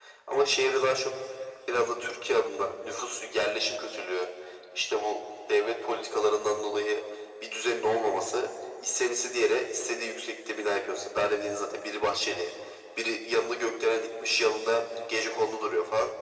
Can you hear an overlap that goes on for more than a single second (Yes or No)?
No